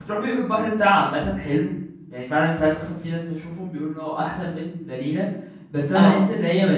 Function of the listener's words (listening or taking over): listening